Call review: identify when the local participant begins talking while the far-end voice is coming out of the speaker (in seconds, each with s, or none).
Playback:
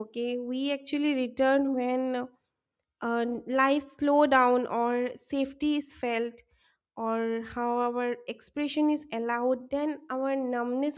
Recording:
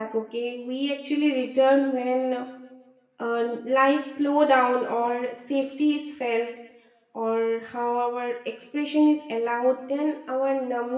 none